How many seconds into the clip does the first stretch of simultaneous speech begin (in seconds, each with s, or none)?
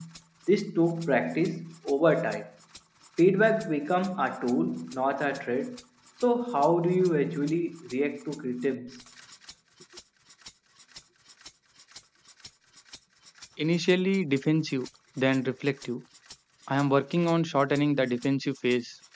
none